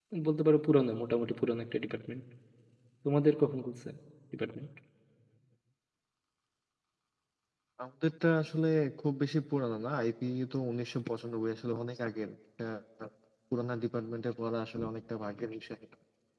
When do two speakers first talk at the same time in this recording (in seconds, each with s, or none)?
none